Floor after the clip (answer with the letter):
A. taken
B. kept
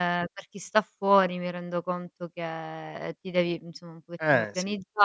B